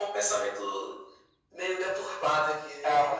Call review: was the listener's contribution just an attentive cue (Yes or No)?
No